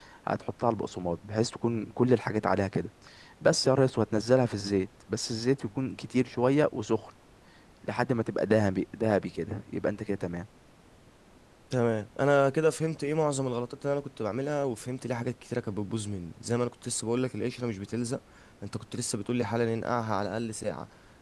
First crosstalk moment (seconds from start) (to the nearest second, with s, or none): none